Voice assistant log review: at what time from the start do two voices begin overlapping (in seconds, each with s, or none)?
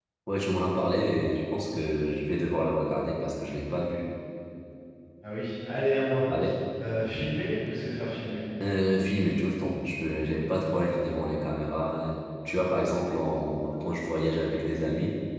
none